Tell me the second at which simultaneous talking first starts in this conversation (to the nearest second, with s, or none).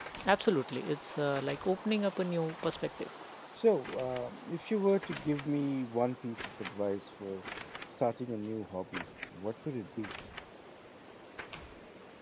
none